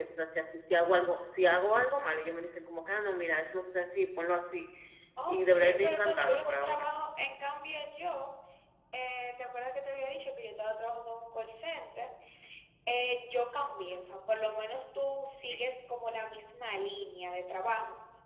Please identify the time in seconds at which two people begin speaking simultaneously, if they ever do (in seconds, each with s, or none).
5.3 s